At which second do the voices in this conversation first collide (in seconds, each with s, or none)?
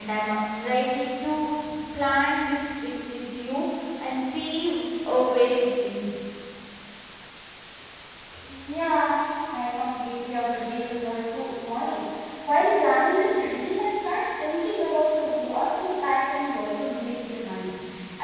none